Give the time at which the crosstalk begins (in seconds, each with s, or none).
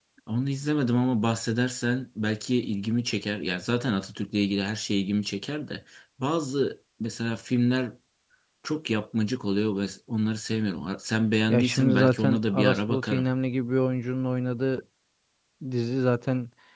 11.5 s